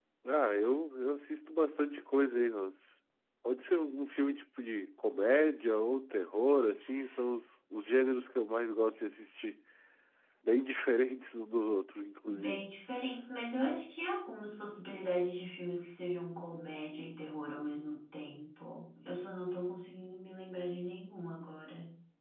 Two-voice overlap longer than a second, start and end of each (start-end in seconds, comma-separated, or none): none